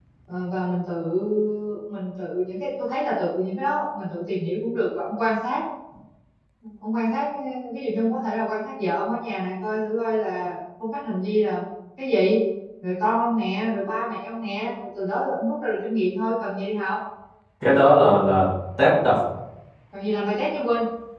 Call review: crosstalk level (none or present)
none